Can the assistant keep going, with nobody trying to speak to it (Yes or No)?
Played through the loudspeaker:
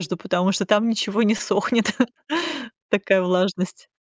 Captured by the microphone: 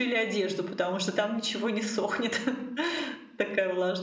Yes